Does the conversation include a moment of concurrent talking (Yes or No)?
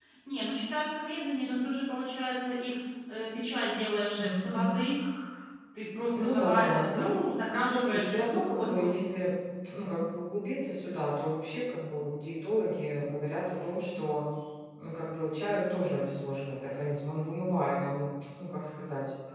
Yes